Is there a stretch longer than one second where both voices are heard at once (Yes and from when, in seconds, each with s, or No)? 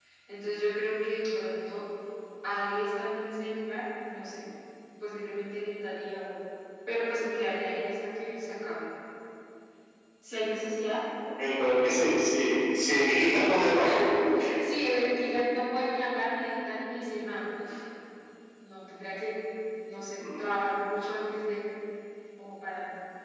No